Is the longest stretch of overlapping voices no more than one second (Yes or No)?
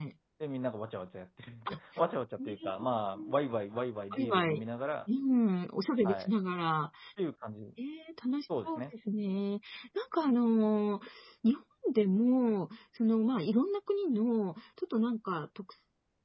Yes